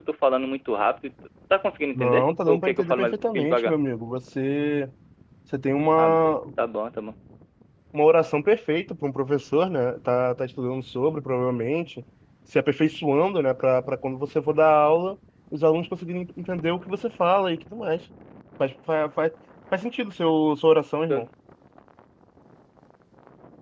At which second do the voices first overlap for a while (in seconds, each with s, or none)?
1.9 s